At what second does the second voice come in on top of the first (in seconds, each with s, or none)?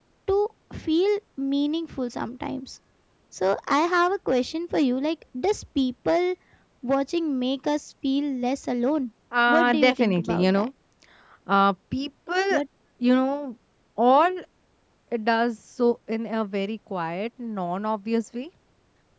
9.3 s